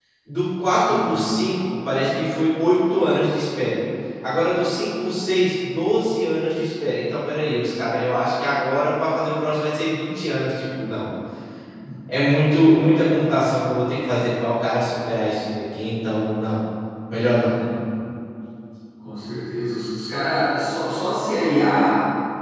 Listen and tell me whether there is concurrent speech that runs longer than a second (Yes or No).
No